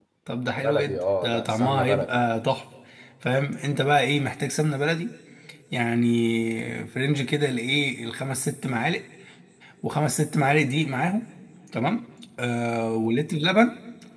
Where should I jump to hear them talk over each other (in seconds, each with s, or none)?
0.6 s